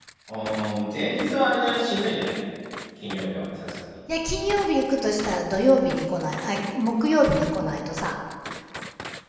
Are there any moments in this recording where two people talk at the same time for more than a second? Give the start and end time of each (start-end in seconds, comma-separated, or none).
none